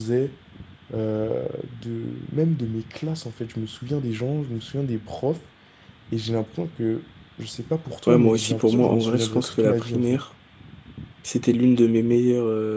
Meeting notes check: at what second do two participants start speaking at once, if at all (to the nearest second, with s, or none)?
8 s